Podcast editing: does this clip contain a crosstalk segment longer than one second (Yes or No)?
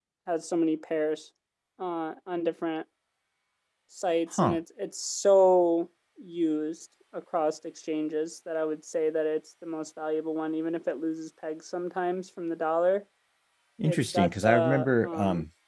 Yes